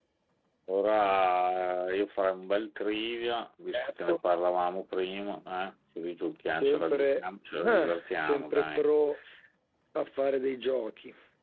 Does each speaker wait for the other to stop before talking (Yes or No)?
No